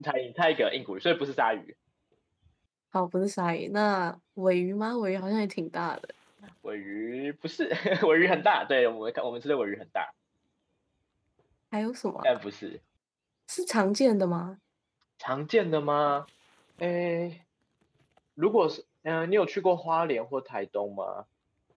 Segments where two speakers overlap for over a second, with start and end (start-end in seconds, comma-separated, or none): none